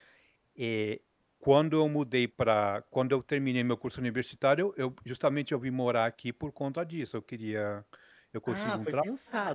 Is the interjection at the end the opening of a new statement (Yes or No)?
Yes